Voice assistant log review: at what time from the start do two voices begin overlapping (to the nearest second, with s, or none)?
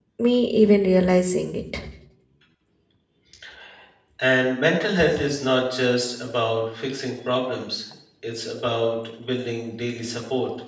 none